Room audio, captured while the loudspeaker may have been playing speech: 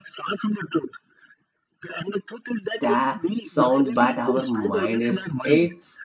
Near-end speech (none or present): present